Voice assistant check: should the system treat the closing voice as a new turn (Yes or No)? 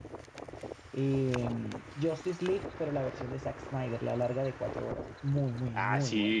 Yes